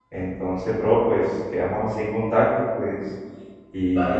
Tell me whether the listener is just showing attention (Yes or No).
No